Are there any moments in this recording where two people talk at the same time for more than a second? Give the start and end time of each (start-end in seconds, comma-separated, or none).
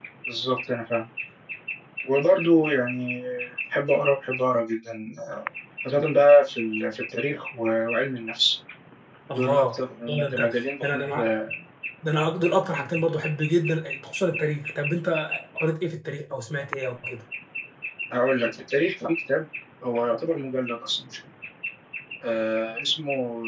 10.1-11.3